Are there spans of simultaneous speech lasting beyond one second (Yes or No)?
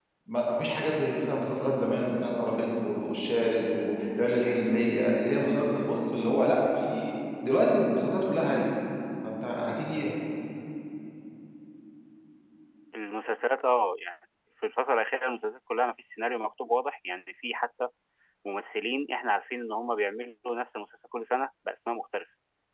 No